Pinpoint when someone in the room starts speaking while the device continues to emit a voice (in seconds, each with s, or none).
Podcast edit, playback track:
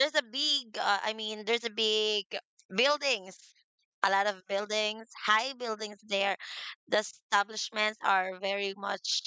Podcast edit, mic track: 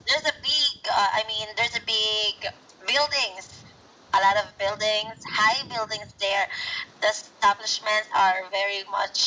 none